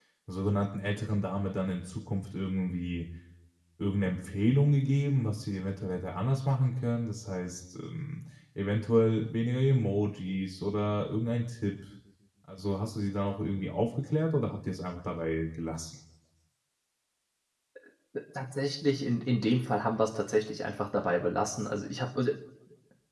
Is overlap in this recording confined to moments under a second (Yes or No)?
Yes